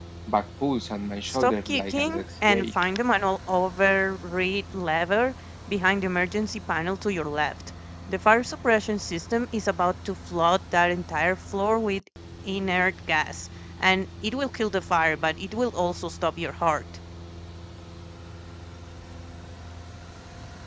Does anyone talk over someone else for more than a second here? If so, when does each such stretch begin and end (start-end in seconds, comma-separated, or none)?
1.3-2.7